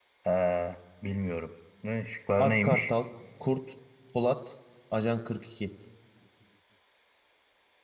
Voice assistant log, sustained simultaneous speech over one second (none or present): none